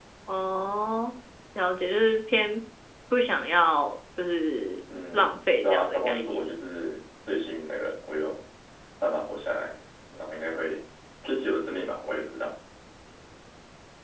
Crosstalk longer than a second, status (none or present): present